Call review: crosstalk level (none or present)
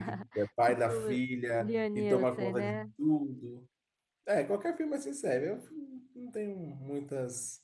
present